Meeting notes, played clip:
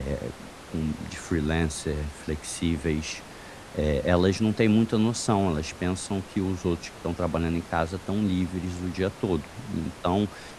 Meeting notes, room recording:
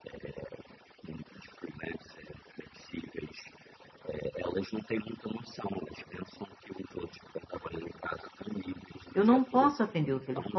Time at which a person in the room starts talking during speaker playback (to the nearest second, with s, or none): 9 s